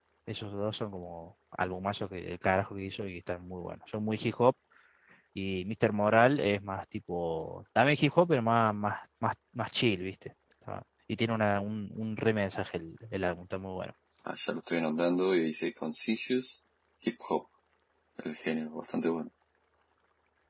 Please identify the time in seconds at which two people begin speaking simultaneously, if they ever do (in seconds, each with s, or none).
none